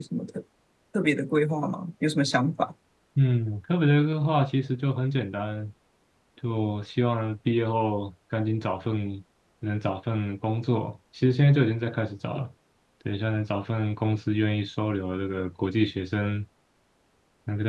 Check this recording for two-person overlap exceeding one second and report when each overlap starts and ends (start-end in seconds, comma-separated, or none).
none